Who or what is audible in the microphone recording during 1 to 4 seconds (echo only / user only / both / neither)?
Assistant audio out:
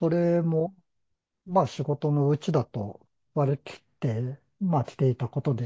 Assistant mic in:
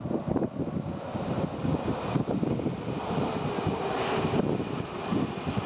neither